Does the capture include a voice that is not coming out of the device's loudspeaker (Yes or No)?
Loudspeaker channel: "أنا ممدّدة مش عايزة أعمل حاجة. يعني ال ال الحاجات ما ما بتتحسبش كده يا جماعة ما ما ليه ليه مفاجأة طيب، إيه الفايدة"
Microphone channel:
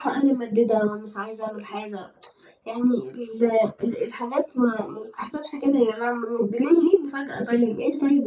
No